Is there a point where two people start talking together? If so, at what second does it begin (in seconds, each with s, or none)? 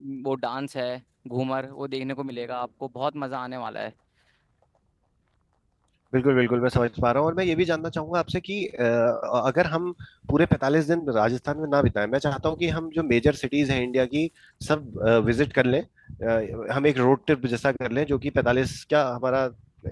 none